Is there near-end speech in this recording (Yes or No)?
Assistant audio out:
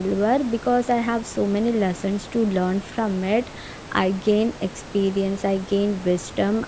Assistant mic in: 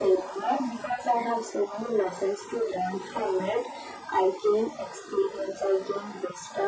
No